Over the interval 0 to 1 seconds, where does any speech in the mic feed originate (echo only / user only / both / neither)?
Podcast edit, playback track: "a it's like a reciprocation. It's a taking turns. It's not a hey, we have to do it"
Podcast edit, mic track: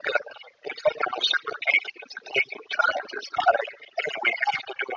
echo only